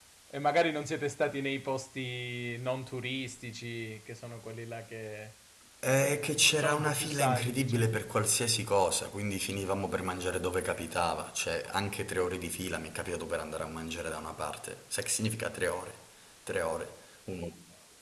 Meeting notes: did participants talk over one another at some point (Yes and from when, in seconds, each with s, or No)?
Yes, from 5.9 s